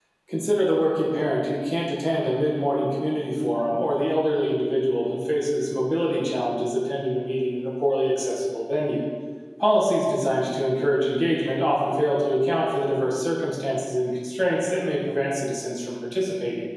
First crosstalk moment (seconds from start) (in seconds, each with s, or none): none